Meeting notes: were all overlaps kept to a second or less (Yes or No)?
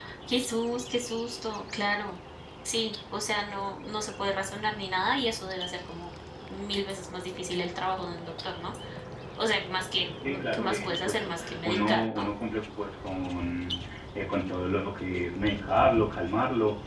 No